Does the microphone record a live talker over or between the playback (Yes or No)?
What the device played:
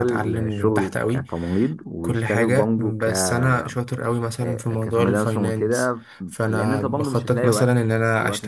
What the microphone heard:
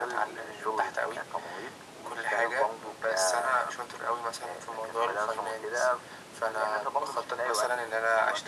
No